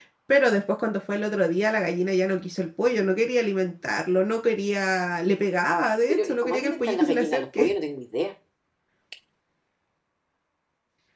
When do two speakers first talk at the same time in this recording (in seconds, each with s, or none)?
6.1 s